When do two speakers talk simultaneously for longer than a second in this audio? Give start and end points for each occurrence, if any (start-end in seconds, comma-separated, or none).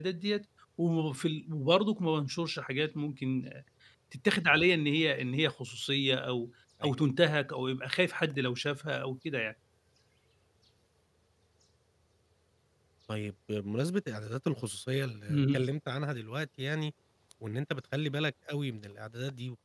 none